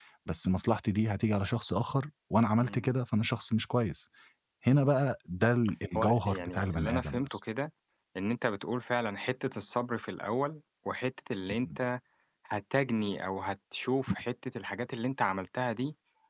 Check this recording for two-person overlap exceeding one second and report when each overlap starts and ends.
6.0-7.2

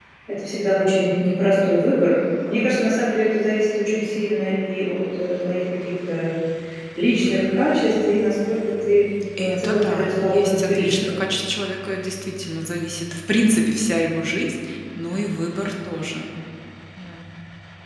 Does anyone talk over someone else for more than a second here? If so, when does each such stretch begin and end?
9.4-11.1

